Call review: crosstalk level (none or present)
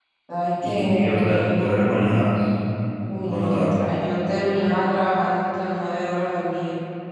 present